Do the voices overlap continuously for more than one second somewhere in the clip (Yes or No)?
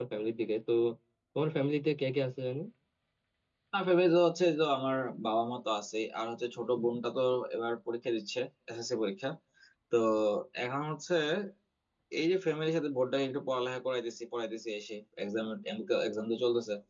No